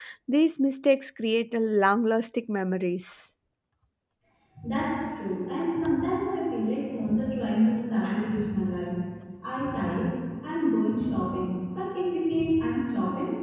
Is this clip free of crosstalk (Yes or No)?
Yes